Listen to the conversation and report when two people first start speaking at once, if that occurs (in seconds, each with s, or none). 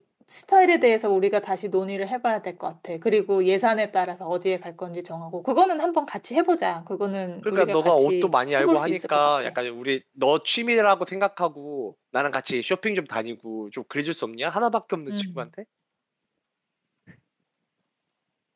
7.5 s